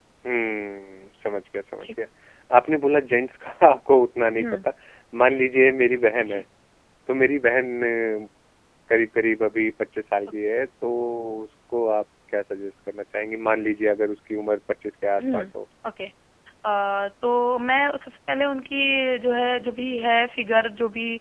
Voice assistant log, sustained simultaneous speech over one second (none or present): none